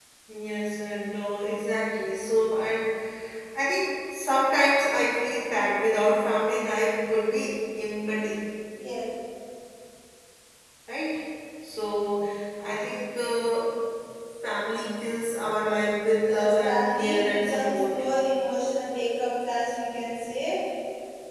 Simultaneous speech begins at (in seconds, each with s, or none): 16.3 s